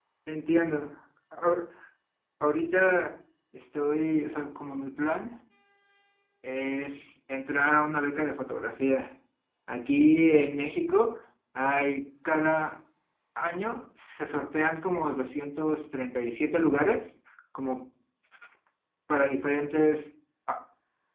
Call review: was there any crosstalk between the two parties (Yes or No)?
No